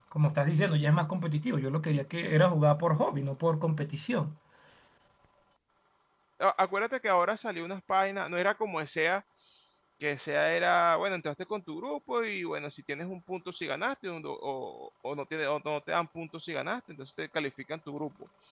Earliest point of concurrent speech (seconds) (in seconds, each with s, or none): none